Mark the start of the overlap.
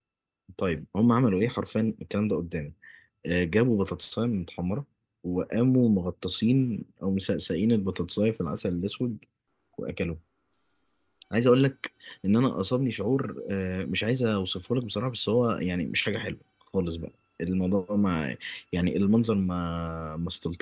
none

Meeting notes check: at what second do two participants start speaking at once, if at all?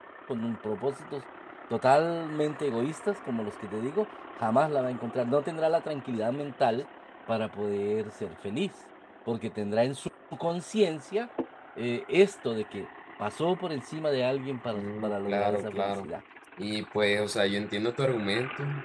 14.7 s

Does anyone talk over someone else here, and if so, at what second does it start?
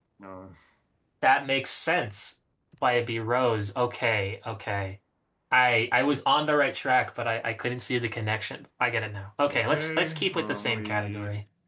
9.5 s

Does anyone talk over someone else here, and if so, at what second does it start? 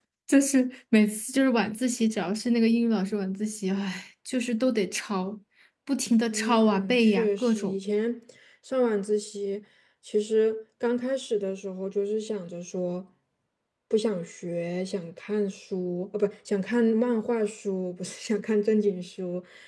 6.2 s

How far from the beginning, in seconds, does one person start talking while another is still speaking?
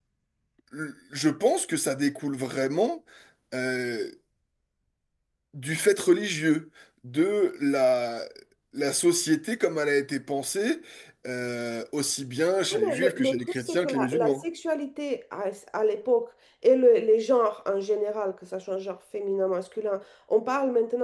12.7 s

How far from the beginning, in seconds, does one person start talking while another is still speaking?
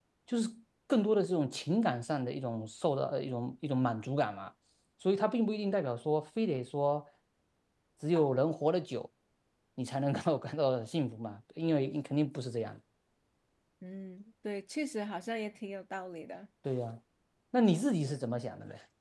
none

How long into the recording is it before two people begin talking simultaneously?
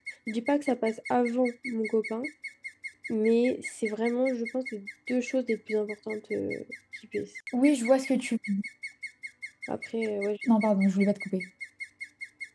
none

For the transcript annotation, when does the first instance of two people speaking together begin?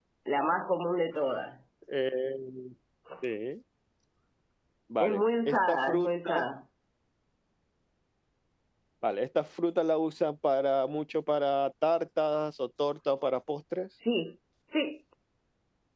5.0 s

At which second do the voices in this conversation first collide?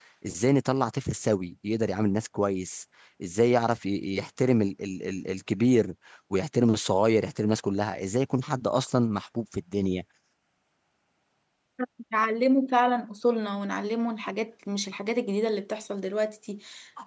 none

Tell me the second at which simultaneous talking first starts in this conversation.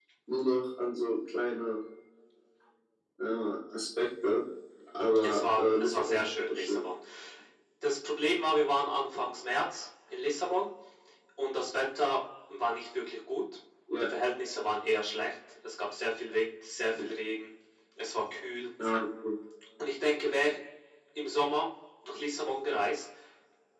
5.2 s

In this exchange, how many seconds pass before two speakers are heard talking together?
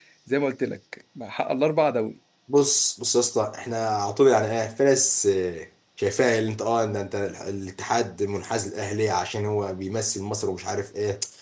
none

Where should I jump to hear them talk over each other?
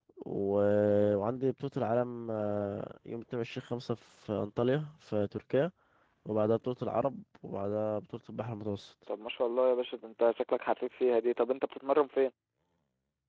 none

